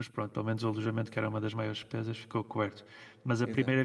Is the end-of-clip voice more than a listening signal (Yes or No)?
No